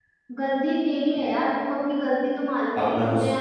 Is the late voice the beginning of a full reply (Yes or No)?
No